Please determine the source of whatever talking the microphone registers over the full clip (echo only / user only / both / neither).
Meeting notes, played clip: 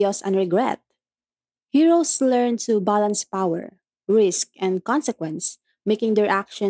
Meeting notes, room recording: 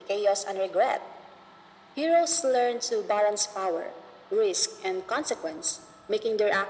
echo only